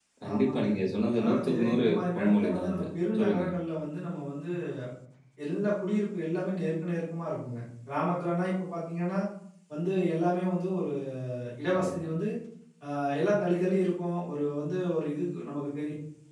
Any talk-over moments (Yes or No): Yes